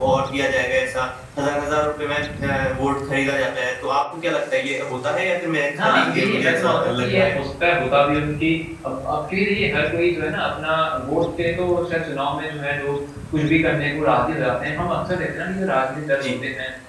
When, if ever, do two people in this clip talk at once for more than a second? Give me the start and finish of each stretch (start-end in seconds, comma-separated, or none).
5.8-7.4